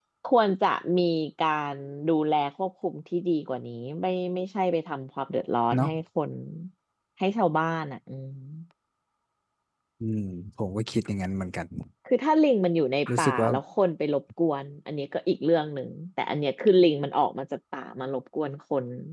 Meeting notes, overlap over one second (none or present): none